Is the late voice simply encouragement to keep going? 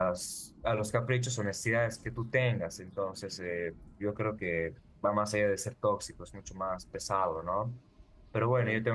Yes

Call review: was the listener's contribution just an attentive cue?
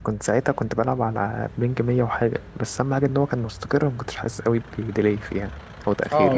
No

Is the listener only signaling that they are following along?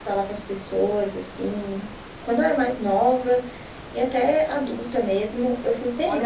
No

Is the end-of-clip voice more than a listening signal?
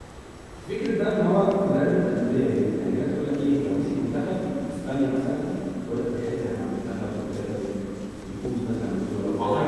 Yes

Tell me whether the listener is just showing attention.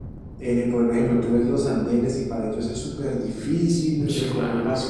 Yes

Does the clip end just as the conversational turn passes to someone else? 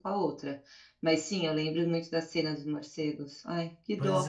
Yes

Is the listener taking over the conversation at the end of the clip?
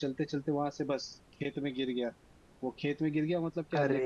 No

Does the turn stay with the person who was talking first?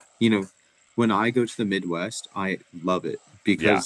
Yes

